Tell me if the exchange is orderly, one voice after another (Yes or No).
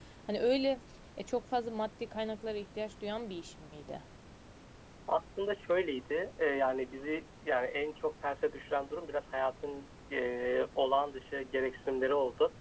Yes